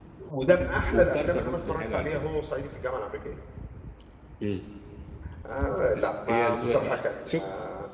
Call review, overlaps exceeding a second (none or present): present